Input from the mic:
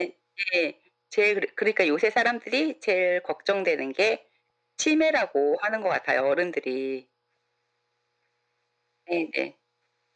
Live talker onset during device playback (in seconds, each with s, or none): none